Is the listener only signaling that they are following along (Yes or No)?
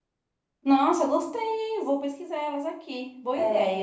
No